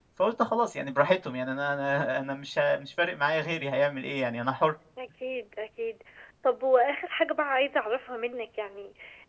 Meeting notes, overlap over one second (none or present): none